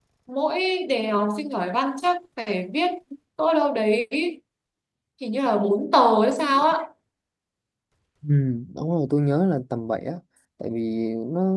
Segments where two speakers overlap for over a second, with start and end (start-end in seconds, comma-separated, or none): none